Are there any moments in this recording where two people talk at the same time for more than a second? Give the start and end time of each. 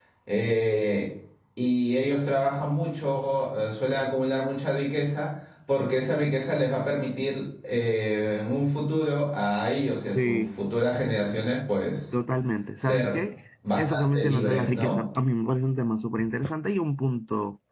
13.7-15.0

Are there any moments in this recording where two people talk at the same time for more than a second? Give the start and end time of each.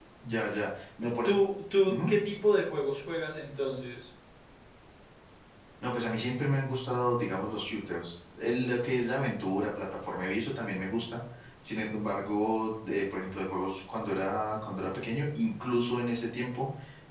none

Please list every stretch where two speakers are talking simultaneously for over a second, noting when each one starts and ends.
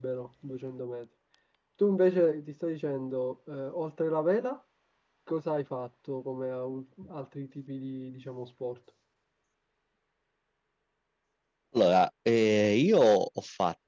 none

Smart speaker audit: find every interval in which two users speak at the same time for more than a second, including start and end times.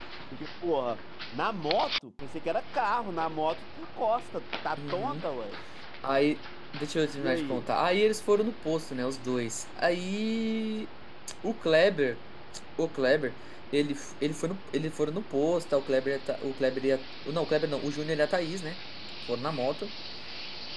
none

